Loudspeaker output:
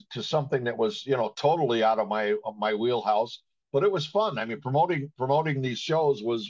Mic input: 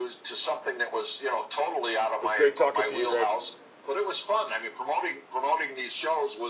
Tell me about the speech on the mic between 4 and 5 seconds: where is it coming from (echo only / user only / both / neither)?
echo only